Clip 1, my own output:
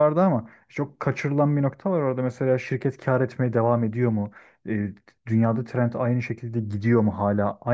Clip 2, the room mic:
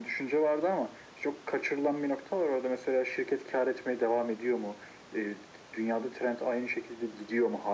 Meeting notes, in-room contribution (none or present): none